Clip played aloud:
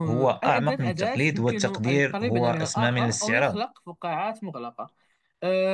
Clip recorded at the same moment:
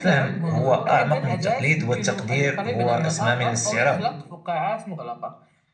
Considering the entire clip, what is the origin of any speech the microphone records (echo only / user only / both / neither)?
both